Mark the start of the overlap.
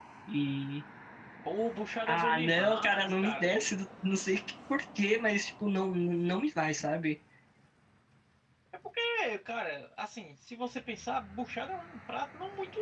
2.1 s

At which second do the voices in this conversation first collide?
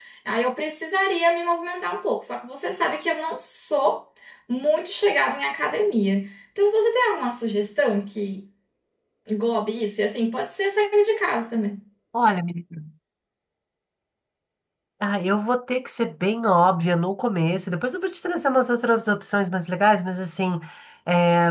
none

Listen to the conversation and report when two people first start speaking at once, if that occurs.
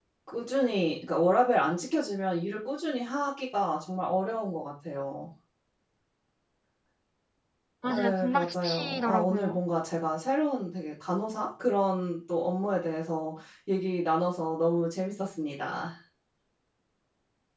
7.9 s

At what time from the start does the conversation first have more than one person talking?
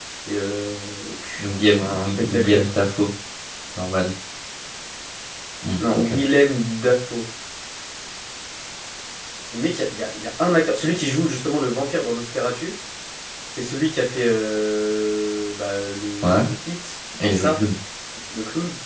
1.4 s

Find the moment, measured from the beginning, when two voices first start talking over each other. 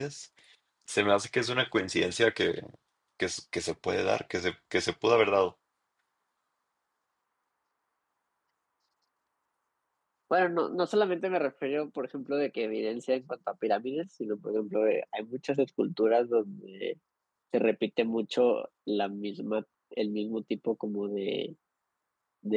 none

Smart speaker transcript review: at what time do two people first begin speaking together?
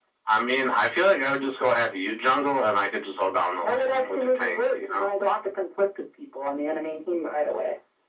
3.6 s

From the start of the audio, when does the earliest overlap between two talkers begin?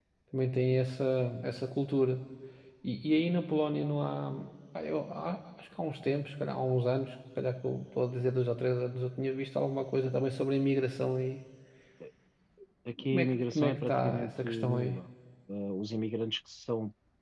13.1 s

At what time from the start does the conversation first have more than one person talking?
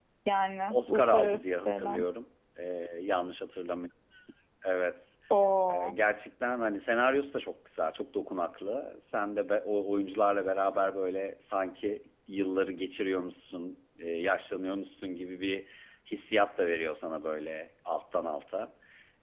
0.7 s

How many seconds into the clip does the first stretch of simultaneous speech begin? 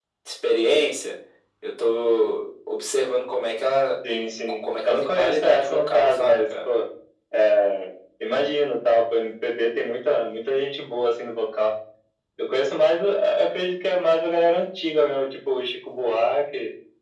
4.6 s

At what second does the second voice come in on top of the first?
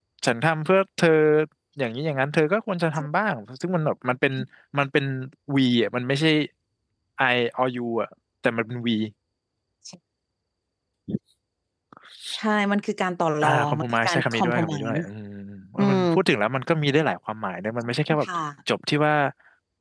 13.4 s

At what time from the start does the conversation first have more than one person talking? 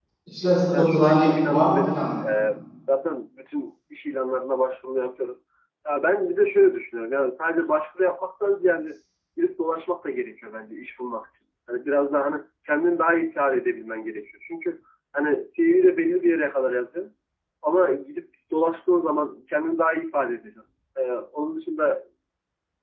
0.7 s

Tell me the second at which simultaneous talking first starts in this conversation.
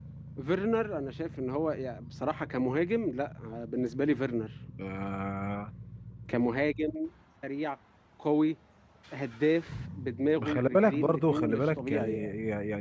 10.4 s

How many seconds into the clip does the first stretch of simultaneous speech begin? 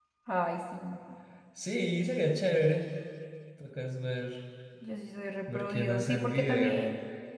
5.5 s

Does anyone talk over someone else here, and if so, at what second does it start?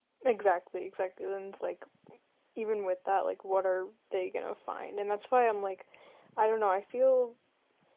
none

